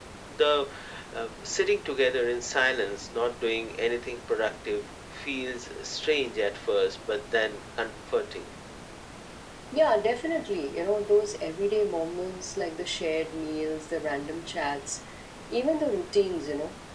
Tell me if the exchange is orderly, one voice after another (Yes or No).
Yes